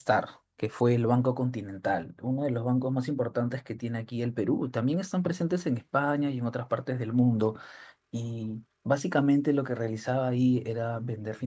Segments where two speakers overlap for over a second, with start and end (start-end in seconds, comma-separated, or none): none